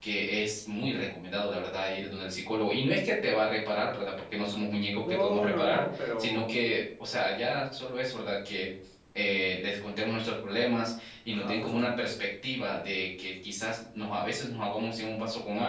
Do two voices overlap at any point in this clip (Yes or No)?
Yes